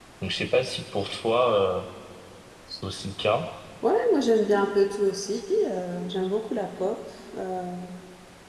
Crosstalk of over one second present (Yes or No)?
No